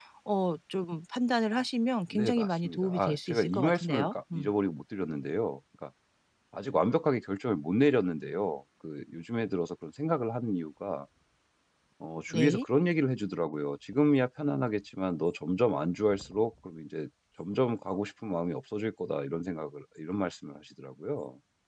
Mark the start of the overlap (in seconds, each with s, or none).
2.1 s